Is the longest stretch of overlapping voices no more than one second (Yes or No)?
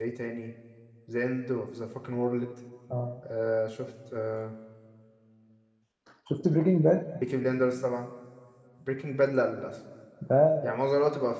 Yes